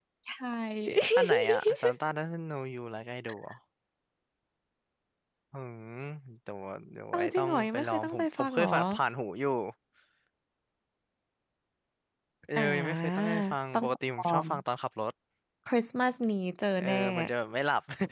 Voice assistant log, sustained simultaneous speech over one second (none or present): present